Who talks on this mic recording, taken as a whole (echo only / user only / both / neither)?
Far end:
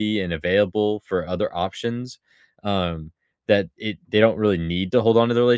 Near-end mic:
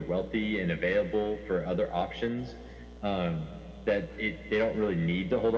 echo only